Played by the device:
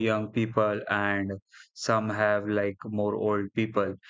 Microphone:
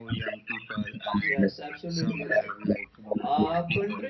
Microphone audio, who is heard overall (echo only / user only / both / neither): both